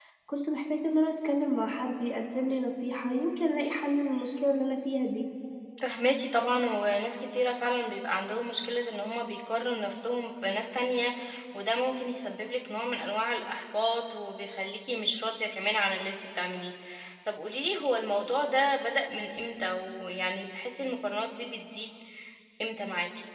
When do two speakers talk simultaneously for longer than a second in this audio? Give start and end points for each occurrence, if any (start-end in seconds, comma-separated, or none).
none